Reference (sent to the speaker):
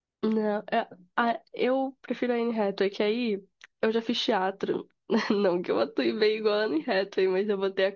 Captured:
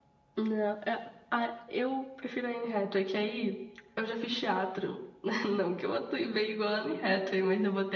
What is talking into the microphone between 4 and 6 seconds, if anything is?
echo only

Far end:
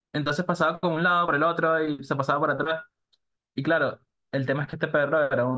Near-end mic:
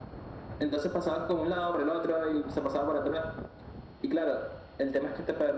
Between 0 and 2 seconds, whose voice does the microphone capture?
echo only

